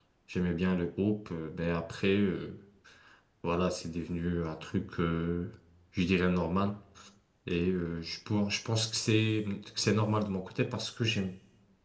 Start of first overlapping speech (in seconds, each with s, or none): none